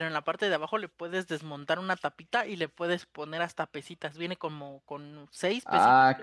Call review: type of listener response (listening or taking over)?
taking over